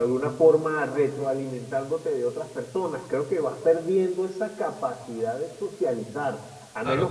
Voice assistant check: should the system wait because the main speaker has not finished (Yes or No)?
Yes